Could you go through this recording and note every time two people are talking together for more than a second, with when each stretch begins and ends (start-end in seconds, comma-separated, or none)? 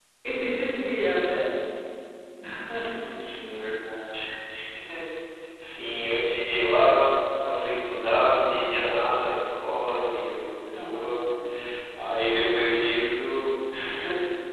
none